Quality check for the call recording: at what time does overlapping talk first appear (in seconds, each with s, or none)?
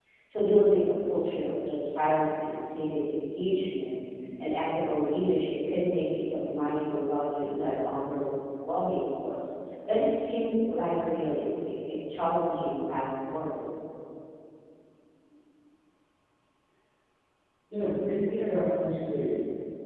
none